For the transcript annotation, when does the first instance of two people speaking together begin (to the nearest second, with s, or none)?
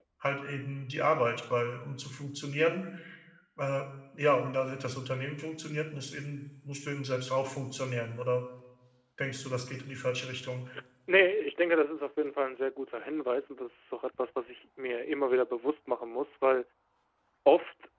none